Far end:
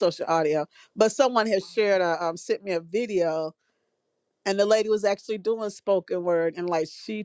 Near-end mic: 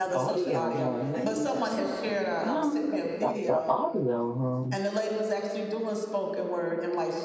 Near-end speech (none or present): present